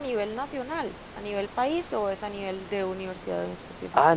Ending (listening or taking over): taking over